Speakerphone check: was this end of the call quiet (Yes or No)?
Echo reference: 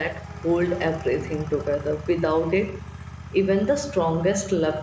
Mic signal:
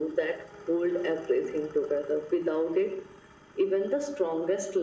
Yes